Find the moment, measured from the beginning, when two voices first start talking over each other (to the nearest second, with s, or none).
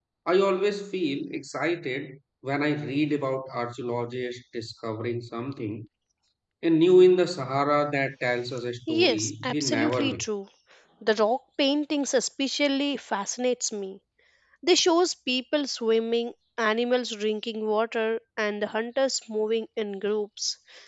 9 s